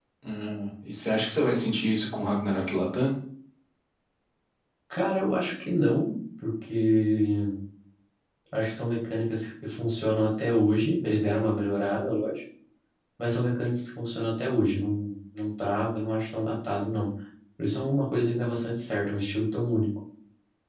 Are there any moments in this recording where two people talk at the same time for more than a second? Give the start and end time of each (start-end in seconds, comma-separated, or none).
none